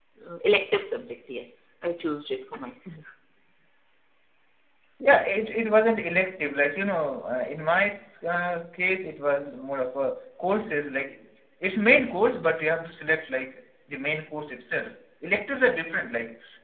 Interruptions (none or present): none